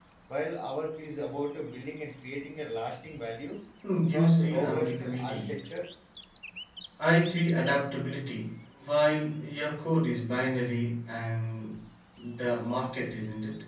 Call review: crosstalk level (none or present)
present